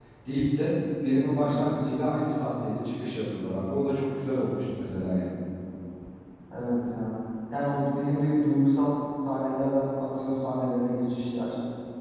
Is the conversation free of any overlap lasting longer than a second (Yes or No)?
Yes